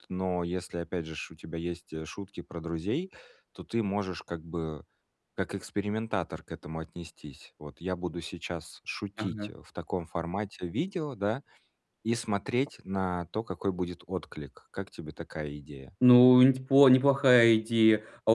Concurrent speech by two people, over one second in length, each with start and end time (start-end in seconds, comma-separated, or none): none